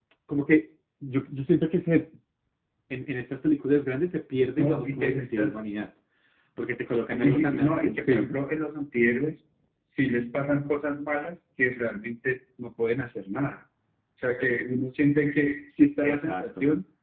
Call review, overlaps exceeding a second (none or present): present